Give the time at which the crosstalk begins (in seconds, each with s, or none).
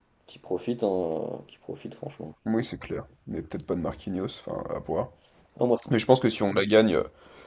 none